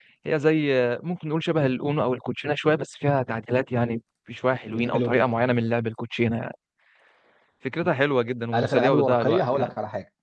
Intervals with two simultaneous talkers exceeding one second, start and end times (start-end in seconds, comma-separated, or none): 8.5-9.7